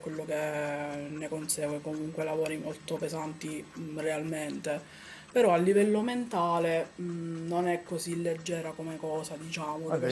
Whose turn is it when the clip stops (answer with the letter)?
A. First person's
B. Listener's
B